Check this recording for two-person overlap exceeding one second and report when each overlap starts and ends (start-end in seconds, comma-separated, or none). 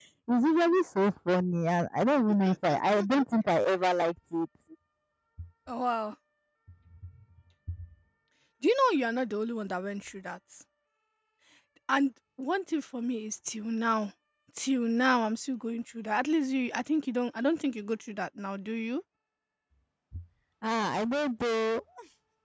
none